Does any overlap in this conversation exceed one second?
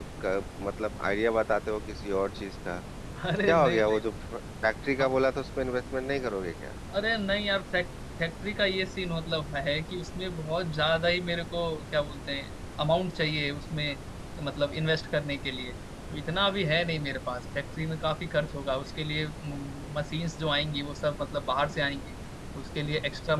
No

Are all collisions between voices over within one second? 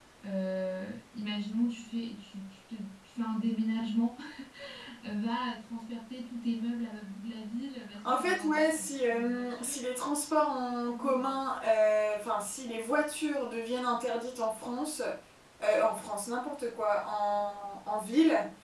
No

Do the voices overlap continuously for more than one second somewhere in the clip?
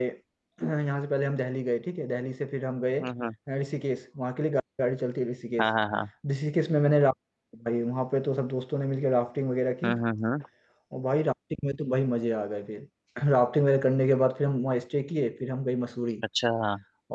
No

